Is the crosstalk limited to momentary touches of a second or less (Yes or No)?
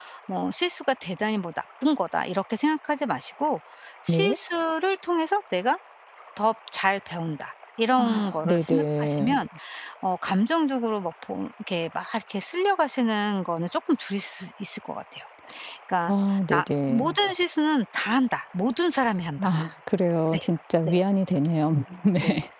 No